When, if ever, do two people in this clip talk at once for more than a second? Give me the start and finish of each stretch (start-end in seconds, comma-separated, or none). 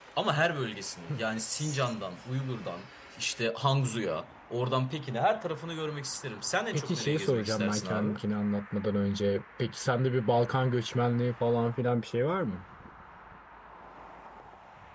6.7-8.1